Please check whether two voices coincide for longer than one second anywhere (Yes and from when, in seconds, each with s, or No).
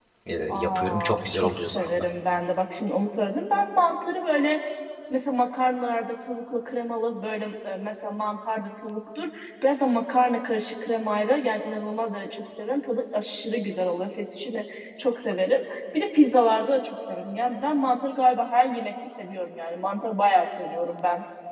Yes, from 0.5 s